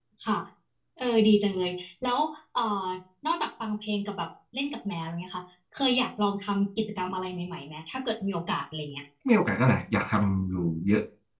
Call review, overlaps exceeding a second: none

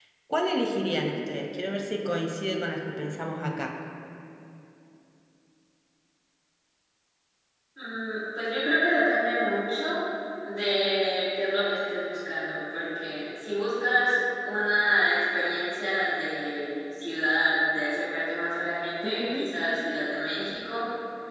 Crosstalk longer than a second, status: none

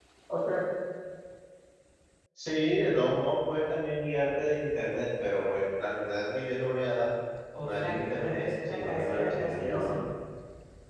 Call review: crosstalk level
present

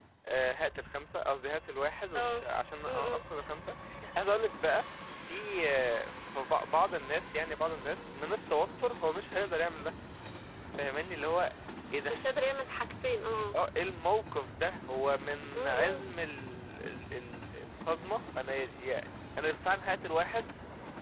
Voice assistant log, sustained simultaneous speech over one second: none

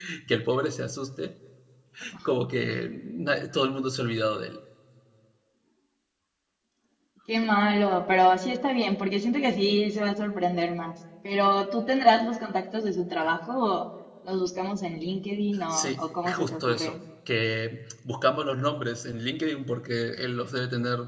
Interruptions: present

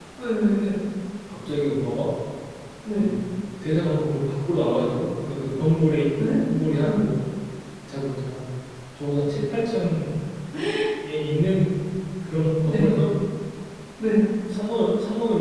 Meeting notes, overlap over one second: none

